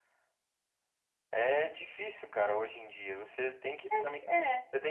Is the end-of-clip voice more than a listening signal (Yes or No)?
No